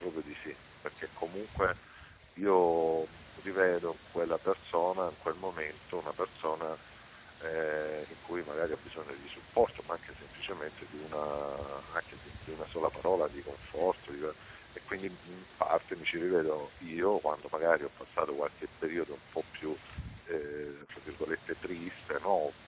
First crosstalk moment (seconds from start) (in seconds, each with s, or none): none